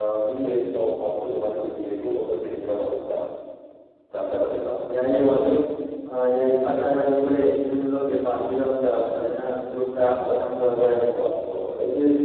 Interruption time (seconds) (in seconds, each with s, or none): none